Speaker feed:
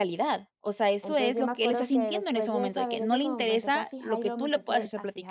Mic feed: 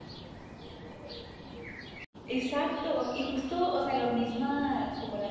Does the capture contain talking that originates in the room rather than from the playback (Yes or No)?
Yes